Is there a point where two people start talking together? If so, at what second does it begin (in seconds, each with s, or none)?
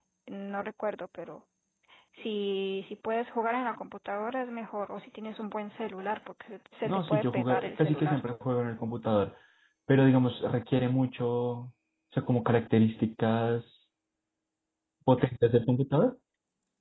6.8 s